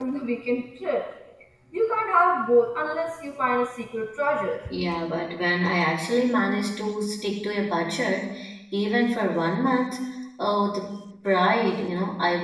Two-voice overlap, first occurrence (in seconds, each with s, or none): none